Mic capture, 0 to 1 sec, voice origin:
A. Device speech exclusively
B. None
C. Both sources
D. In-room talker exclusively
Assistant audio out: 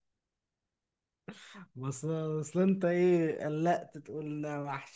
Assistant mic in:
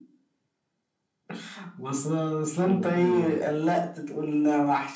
B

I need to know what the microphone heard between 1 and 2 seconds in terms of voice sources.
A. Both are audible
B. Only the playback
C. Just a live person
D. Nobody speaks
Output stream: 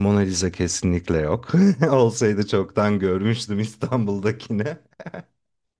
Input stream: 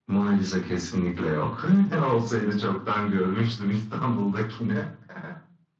B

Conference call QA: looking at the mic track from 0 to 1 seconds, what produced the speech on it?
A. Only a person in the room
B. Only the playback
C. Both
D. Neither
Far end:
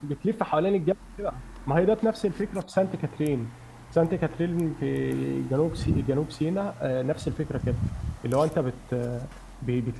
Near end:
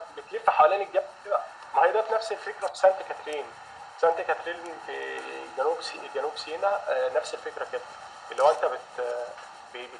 B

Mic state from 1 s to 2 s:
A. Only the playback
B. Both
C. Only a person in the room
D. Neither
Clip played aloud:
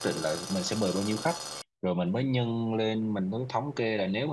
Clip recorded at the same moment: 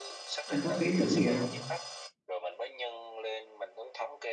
B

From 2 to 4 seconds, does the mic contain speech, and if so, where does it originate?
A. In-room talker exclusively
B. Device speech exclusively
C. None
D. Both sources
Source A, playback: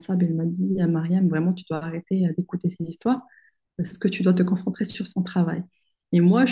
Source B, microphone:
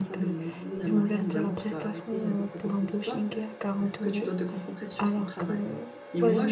D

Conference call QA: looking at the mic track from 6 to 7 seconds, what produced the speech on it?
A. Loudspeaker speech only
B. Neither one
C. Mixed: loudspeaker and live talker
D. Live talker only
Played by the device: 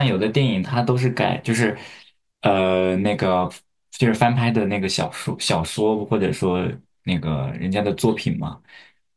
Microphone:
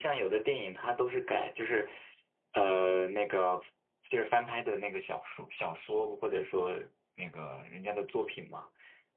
A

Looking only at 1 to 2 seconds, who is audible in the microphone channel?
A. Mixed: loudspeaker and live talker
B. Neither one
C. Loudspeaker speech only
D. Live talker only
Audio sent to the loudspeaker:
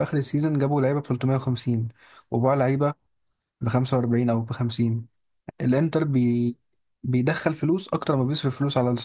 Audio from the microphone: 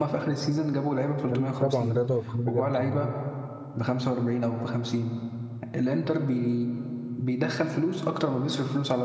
A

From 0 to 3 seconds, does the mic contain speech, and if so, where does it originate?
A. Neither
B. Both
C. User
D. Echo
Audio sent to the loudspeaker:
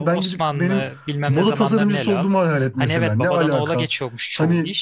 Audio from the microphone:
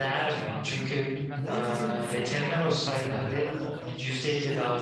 B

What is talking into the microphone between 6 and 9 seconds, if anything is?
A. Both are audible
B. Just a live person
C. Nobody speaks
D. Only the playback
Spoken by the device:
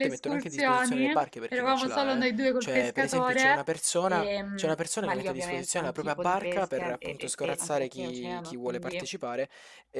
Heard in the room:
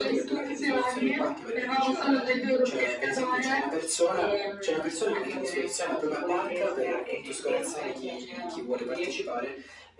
D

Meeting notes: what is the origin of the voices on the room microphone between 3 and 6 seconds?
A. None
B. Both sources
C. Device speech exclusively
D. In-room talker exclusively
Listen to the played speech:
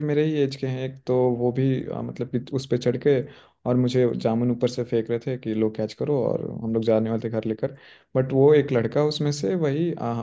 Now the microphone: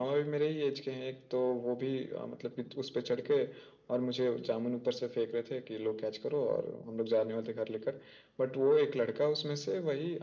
C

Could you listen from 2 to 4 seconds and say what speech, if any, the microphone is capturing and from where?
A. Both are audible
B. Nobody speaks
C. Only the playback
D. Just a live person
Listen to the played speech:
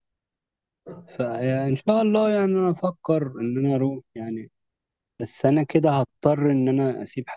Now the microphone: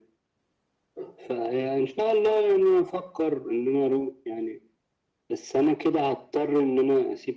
C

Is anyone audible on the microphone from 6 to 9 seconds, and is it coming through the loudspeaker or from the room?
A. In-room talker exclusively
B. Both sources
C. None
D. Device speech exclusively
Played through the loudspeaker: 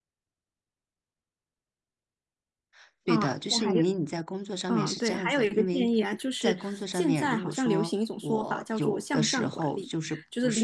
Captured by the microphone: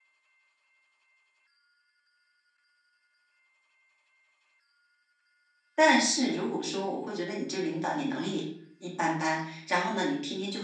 A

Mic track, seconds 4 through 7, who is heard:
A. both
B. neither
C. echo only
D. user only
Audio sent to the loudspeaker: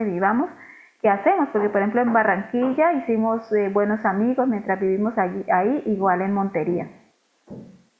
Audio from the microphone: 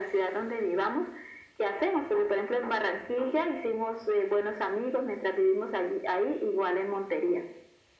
C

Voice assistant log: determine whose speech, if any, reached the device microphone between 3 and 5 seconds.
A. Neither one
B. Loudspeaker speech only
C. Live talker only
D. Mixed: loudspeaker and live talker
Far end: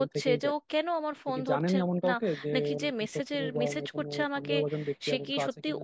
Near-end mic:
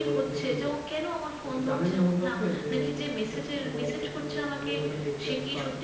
B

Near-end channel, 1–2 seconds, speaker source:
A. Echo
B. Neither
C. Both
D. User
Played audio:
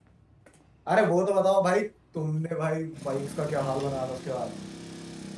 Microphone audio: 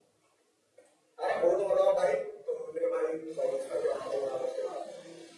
A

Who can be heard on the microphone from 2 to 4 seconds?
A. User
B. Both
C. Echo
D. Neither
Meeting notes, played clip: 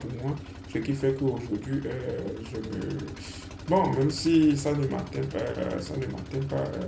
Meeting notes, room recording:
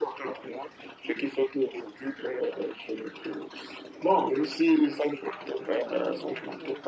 C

